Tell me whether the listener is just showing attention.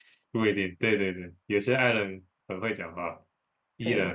No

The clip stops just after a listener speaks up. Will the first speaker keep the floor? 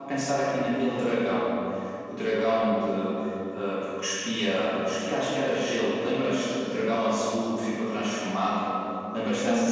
No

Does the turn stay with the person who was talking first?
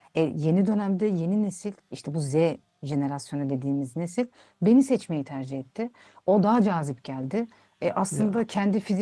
Yes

